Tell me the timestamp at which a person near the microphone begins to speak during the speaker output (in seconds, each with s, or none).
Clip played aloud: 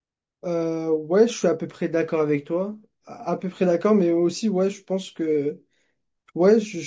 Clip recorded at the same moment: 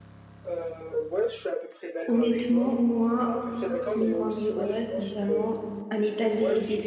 2.1 s